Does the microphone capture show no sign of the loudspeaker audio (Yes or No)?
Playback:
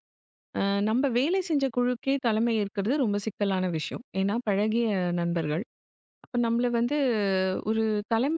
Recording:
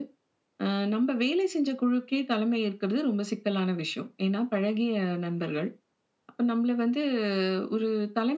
No